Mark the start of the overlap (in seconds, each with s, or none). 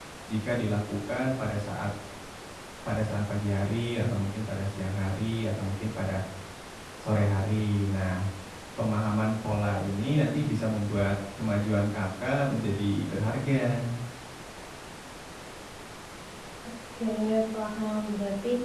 none